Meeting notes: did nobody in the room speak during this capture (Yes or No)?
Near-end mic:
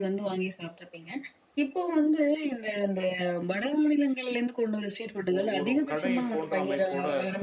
No